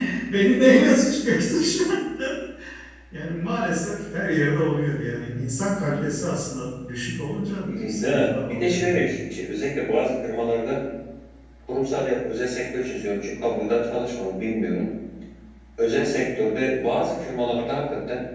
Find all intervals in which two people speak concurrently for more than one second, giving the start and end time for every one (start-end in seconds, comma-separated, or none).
7.6-9.1